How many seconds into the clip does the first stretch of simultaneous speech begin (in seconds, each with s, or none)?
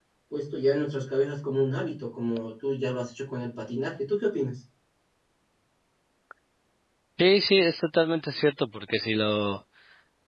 none